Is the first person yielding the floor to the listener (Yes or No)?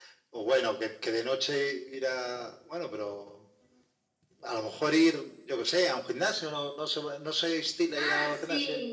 Yes